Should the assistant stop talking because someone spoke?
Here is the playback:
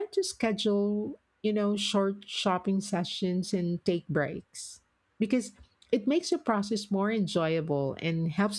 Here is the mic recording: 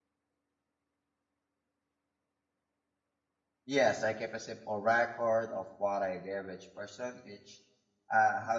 Yes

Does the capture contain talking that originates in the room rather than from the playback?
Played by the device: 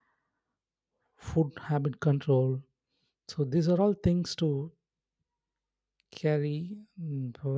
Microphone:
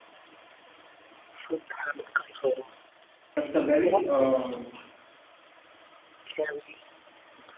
Yes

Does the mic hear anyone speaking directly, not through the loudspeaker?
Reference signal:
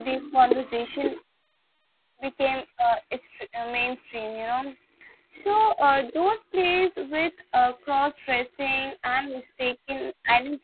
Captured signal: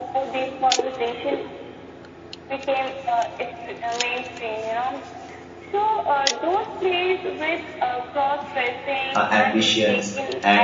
Yes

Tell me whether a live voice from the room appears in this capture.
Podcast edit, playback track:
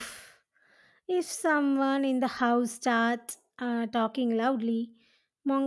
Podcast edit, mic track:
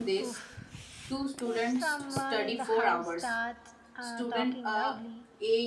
Yes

